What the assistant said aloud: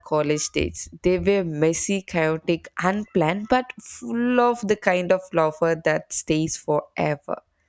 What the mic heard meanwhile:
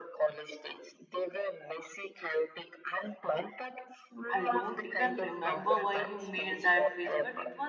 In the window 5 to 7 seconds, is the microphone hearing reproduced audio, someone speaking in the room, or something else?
both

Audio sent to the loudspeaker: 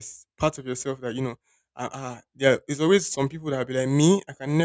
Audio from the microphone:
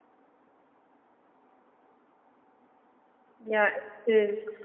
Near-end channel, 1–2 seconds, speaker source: neither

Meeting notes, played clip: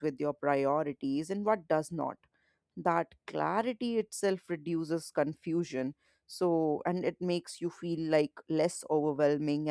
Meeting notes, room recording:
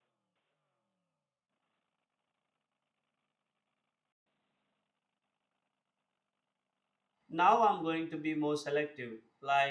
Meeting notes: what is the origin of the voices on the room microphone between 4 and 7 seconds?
neither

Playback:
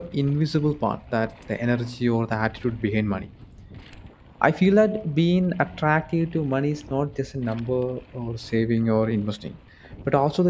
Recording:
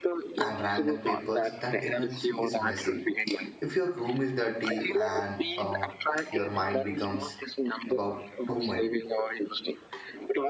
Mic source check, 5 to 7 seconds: both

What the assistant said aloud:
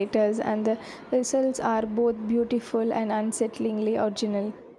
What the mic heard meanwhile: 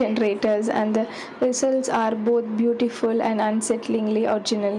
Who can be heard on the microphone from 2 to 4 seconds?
echo only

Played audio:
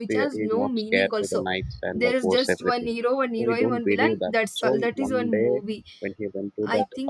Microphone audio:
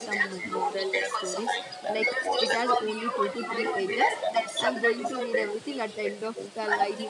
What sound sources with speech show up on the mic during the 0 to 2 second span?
both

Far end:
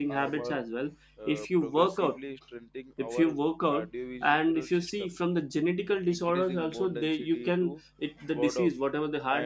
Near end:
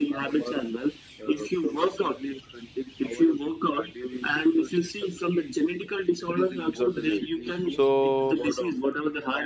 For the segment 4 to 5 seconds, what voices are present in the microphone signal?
echo only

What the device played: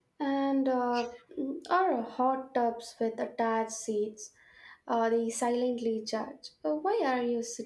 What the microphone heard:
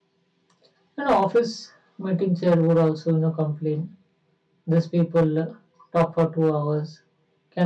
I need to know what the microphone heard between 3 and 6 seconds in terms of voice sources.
user only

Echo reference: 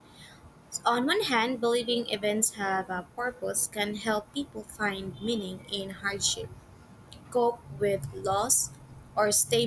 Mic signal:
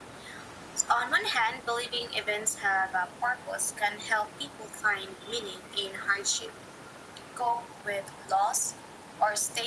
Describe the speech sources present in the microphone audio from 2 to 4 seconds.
echo only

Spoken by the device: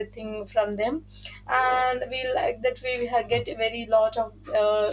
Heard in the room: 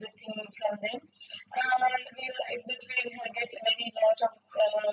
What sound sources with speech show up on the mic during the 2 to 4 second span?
echo only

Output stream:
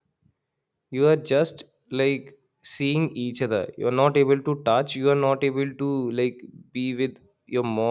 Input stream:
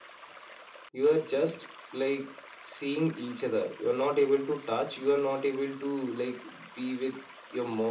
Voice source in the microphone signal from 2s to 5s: echo only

